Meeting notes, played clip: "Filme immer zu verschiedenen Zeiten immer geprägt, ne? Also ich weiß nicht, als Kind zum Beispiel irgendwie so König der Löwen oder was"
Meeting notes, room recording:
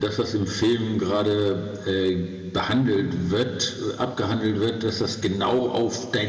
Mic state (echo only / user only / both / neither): user only